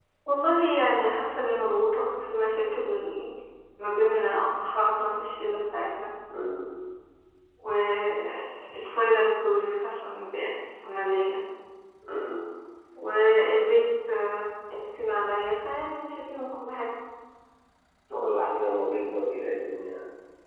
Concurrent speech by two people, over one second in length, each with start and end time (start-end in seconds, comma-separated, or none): none